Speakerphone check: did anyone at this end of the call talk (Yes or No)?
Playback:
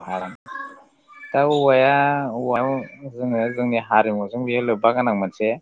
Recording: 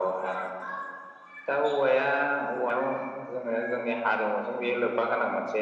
No